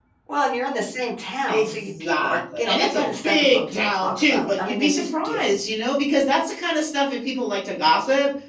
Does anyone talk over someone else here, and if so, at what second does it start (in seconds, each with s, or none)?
1.5 s